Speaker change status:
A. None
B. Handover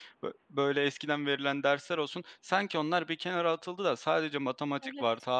A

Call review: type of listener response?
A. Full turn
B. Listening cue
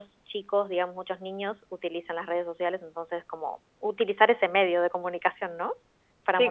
A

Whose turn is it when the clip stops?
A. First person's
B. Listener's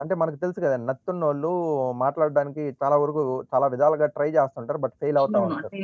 B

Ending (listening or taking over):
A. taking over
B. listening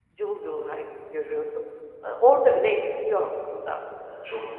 A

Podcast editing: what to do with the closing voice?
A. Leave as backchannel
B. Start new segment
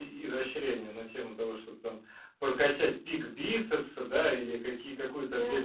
A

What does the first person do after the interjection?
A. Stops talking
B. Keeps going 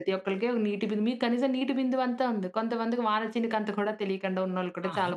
A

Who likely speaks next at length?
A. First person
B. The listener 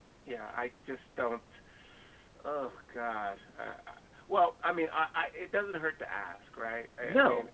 B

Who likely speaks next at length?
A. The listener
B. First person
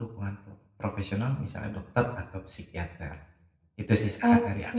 A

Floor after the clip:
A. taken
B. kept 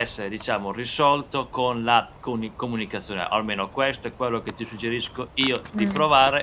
B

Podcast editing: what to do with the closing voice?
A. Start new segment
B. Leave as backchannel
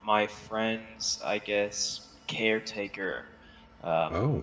B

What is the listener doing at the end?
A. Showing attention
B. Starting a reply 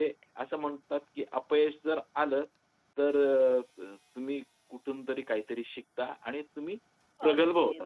B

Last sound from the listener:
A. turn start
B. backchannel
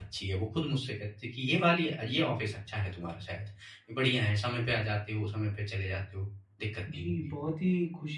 A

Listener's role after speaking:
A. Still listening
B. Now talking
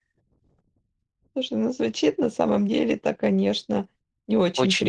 A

